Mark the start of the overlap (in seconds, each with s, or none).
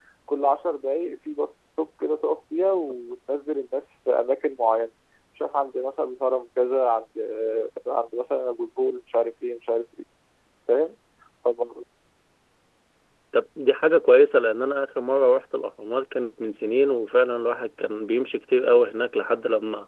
none